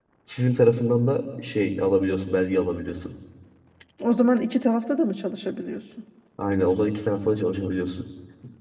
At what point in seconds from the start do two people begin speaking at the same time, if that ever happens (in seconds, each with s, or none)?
none